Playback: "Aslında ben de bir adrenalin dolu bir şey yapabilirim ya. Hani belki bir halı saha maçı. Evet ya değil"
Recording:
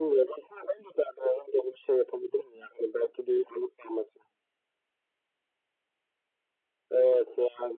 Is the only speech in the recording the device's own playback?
Yes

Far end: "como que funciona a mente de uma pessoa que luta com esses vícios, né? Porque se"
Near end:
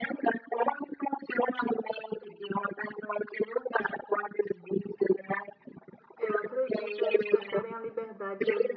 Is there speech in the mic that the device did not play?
Yes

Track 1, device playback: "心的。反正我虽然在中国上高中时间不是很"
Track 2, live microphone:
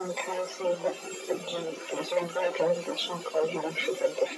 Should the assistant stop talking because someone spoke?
No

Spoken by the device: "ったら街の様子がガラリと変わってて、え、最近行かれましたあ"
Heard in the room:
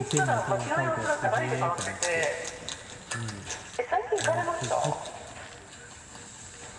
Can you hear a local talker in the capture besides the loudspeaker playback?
Yes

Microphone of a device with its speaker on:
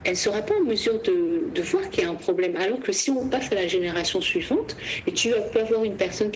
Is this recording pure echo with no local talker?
Yes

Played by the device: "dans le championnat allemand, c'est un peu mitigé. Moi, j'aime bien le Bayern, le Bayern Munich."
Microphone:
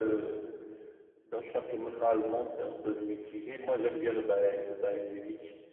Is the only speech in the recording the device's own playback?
Yes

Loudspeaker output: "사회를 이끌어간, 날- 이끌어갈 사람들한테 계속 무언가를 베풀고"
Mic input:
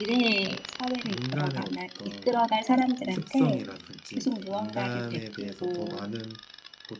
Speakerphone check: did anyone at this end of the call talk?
Yes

